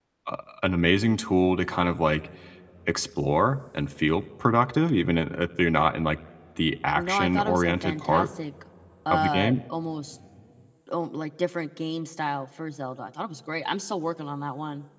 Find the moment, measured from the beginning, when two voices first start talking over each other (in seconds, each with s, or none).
7.0 s